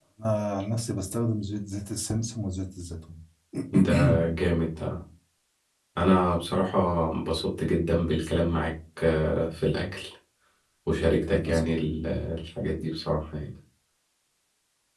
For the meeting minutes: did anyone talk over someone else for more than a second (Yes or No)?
No